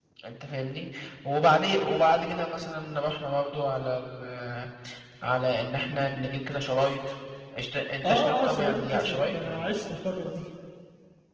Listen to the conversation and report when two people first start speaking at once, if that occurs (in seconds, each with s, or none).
8.0 s